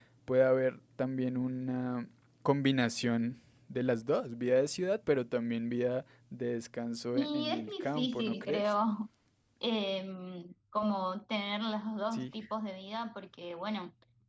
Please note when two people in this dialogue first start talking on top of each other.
7.1 s

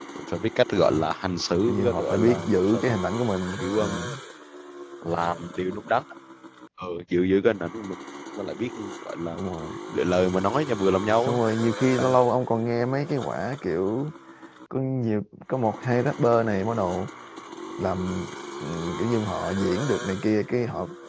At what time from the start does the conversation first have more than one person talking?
1.6 s

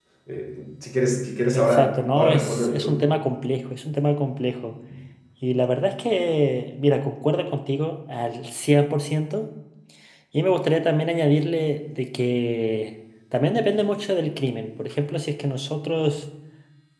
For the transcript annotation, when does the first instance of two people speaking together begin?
1.5 s

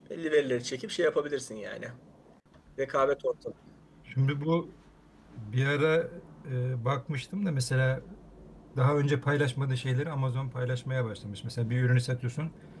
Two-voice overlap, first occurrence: none

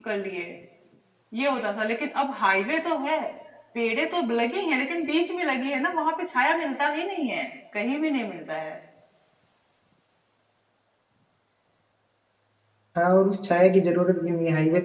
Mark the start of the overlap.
none

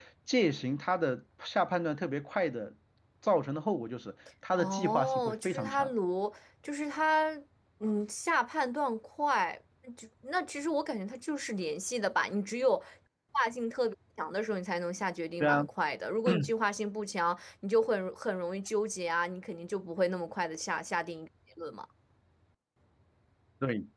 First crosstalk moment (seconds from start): 4.6 s

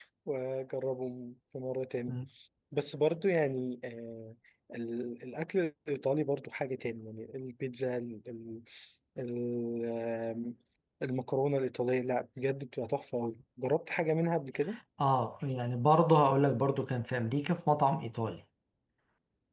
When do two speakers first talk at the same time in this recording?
none

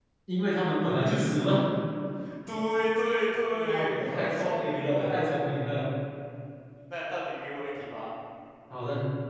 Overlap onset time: 3.5 s

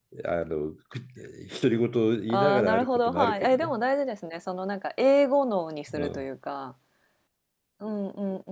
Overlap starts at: 2.3 s

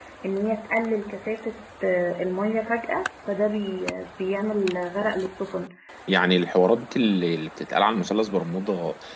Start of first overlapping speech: none

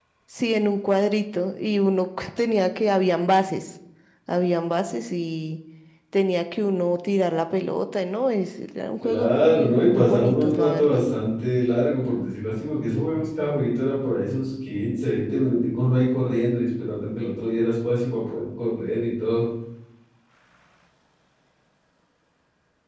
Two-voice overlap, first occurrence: 9.0 s

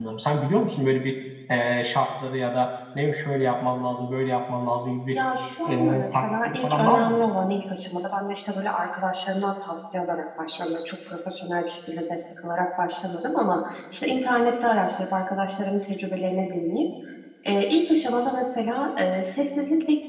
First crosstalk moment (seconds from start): 5.7 s

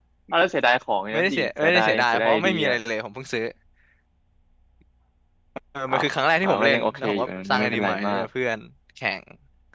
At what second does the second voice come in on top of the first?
1.1 s

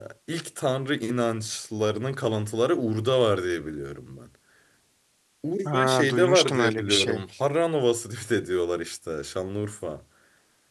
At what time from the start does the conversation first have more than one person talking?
5.6 s

